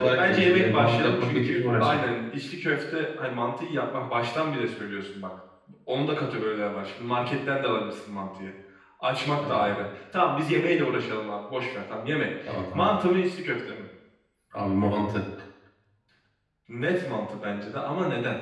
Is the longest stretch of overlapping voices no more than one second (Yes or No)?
No